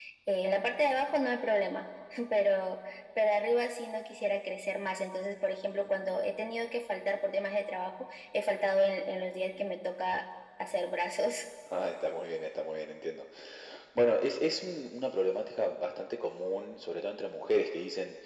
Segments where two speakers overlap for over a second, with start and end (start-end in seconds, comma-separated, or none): none